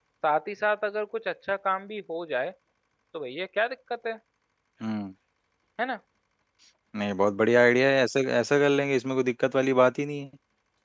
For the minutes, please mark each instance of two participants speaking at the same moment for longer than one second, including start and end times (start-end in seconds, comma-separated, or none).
none